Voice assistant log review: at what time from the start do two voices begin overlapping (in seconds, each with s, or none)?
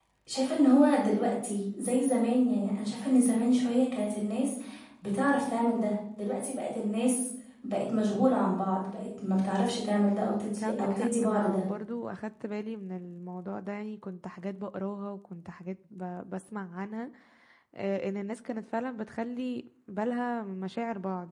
10.4 s